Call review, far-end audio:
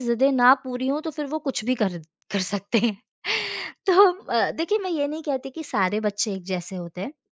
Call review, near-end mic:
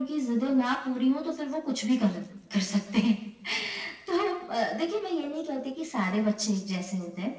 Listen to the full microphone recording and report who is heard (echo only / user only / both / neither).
echo only